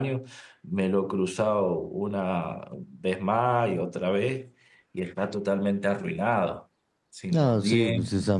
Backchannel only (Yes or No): No